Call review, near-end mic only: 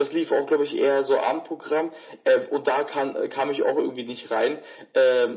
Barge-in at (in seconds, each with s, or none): none